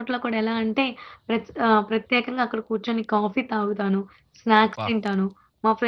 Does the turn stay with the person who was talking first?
Yes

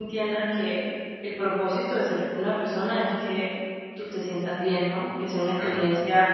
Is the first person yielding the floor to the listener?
No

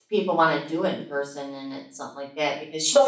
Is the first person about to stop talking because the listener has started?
Yes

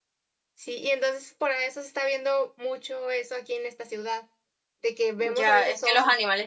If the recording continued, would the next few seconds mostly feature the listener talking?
Yes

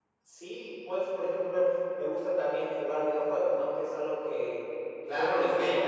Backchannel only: No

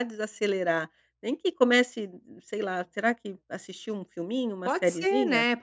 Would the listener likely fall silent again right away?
No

